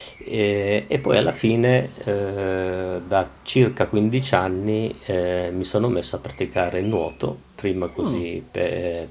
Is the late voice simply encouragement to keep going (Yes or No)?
Yes